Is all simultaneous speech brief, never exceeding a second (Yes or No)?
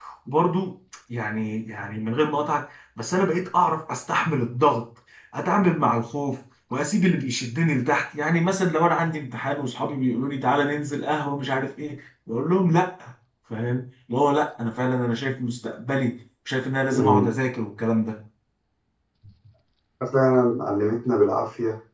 Yes